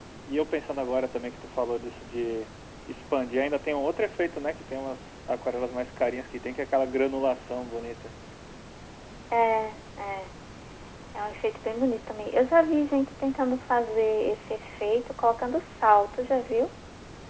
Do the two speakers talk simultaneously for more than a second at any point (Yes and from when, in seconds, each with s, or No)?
No